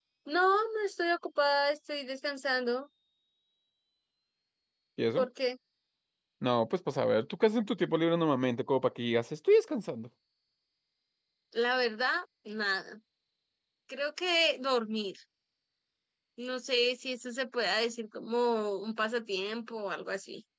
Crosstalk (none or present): none